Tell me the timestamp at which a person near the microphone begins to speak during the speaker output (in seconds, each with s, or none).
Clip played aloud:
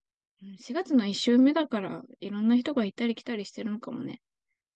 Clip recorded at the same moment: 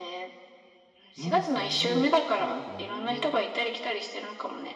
1.2 s